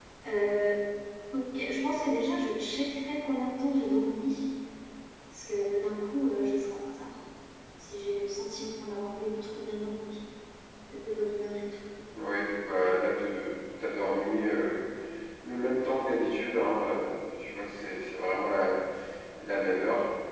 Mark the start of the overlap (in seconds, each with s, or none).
none